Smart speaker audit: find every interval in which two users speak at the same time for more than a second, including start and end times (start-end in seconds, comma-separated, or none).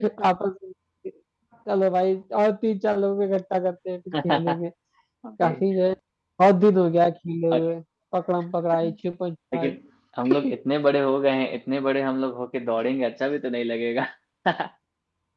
none